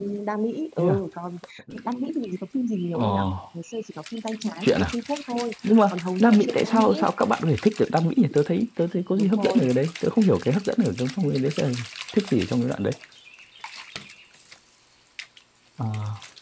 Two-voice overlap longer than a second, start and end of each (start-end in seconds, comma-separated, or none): 5.9-7.1